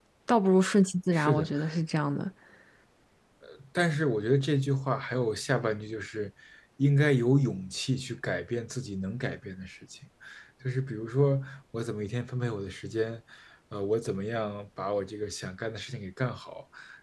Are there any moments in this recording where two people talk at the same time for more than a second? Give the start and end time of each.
none

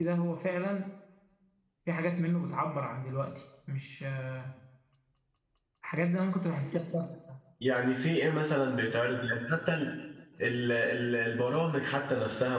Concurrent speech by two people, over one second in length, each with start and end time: none

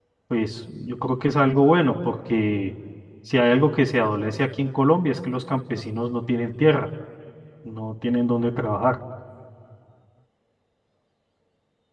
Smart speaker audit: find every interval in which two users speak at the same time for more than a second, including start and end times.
none

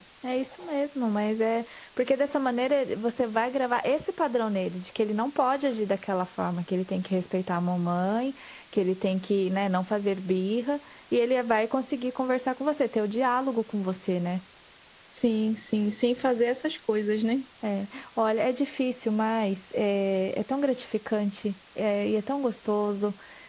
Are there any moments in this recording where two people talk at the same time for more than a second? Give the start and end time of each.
none

